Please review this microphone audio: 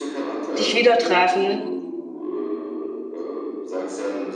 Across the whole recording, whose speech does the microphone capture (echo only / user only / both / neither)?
both